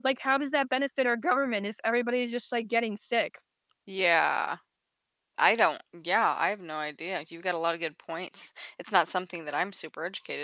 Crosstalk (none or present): none